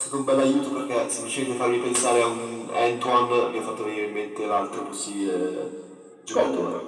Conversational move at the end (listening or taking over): taking over